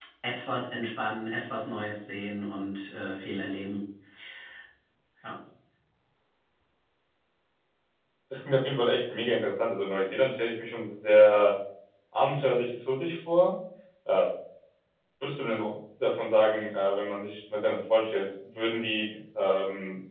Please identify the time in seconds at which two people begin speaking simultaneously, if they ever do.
none

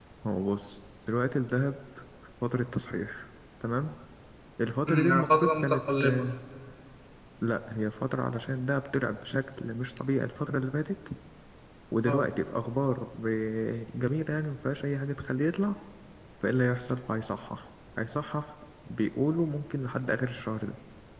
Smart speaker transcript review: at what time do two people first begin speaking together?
5 s

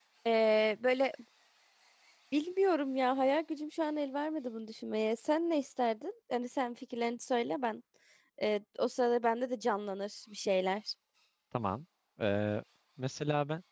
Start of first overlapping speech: none

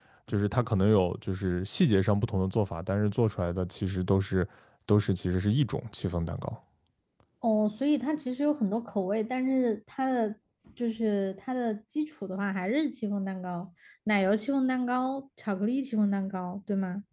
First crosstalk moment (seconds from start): none

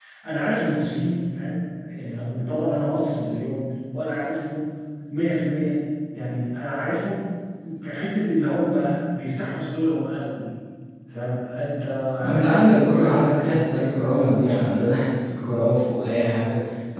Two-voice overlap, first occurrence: 12 s

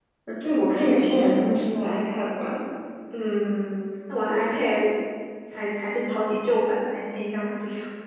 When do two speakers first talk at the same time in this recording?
none

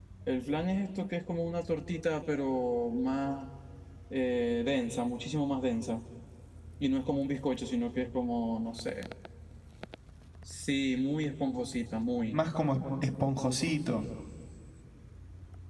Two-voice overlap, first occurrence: none

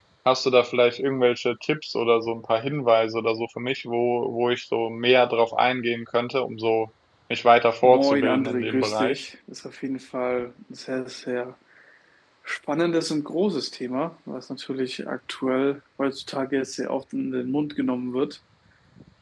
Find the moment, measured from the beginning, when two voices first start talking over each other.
8 s

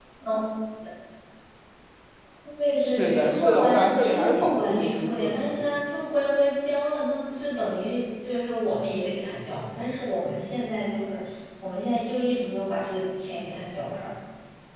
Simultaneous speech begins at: 3 s

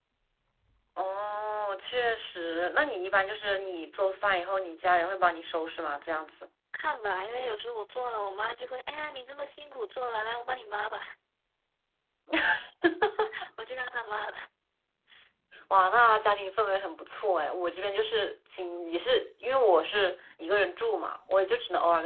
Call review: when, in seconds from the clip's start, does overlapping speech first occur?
none

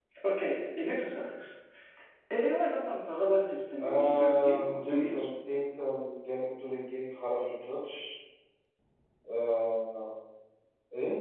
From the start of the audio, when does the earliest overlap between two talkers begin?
4 s

